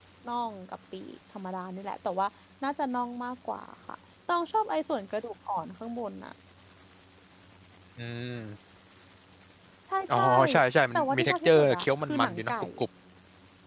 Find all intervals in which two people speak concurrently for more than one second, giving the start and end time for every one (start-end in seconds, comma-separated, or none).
10.9-12.5